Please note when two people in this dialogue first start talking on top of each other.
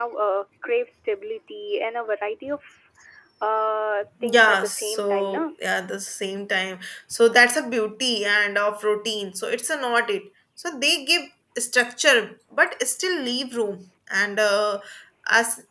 4 s

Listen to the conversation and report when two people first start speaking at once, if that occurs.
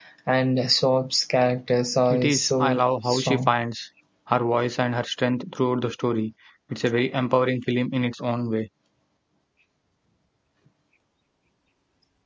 2 s

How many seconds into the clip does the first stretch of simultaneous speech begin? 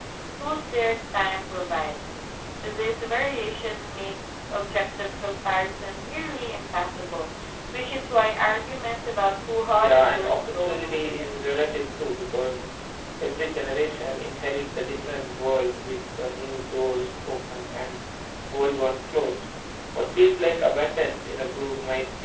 10 s

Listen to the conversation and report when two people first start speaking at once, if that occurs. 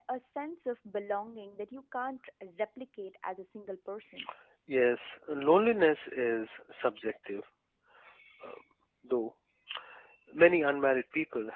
none

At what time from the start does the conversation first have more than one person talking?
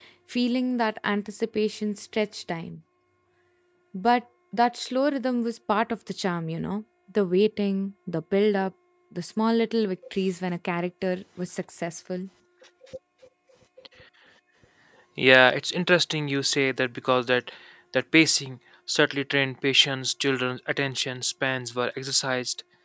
none

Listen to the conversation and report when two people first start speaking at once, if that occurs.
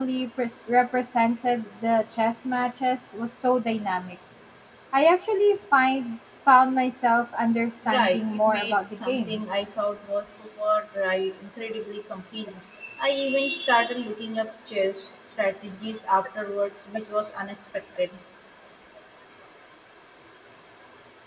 8 s

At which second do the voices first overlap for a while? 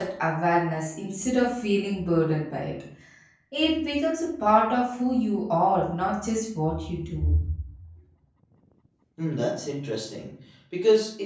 none

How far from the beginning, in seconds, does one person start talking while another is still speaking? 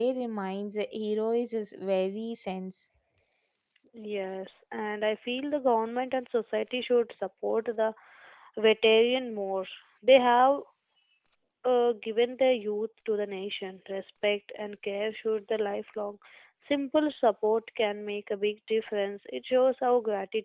none

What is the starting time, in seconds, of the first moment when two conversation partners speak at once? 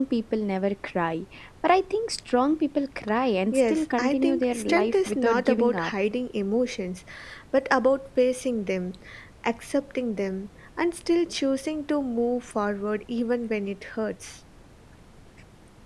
4 s

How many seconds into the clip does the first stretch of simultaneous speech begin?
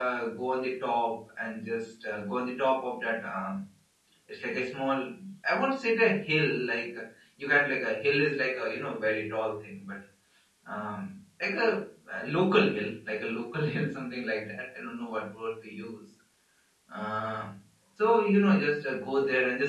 none

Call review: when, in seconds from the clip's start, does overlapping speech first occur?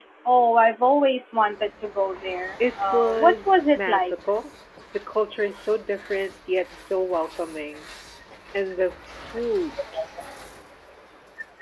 3 s

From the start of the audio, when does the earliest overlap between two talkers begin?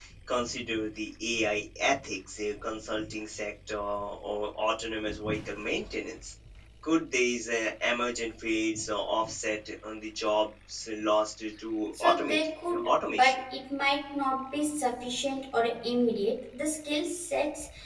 12 s

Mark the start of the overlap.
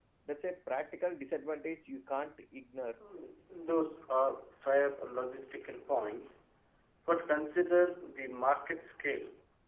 none

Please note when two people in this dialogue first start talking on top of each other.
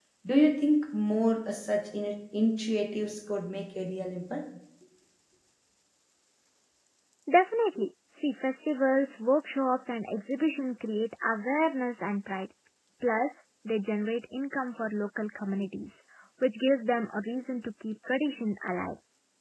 none

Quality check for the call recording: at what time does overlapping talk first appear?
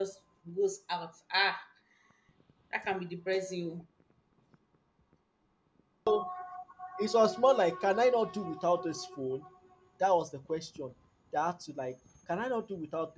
none

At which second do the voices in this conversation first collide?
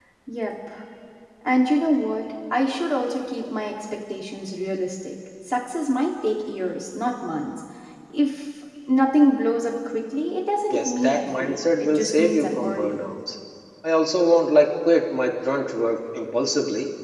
11 s

